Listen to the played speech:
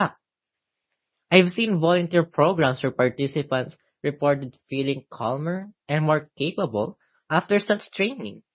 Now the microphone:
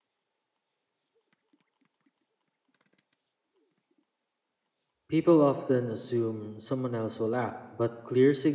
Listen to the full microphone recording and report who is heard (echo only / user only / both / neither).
user only